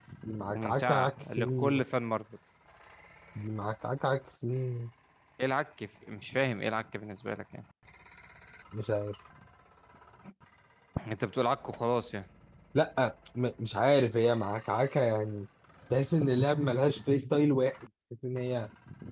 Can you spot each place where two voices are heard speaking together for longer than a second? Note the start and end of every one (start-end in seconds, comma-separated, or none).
0.5-1.8